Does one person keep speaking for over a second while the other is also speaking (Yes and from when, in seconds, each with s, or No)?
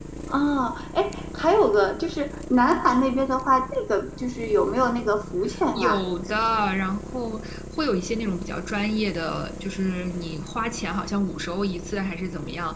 No